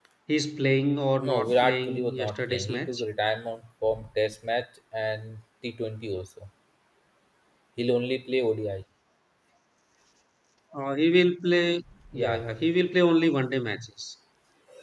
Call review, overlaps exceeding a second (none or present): present